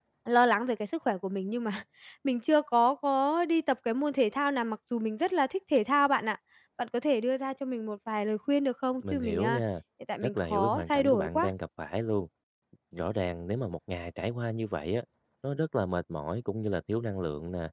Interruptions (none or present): present